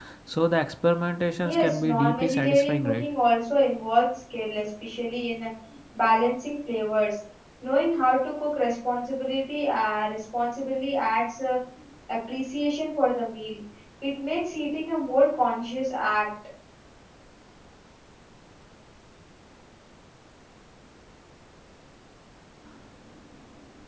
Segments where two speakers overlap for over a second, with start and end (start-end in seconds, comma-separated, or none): 1.4-3.0